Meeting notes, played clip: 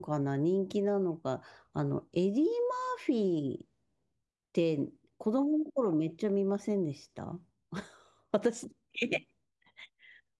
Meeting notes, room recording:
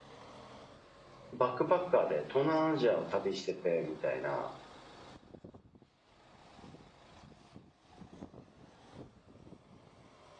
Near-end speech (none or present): present